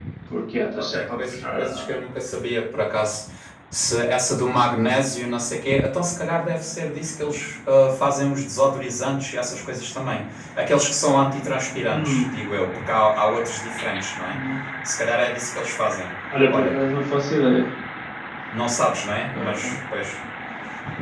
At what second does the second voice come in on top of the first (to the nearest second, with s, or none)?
1 s